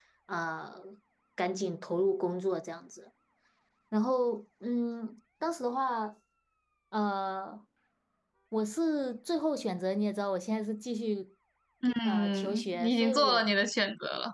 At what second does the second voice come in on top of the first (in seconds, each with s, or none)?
12.0 s